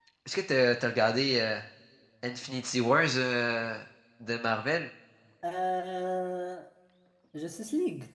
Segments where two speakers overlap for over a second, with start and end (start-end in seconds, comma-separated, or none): none